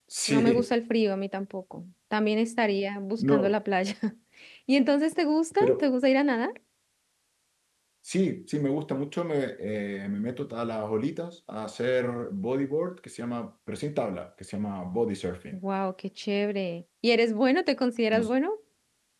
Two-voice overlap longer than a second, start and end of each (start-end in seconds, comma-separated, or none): none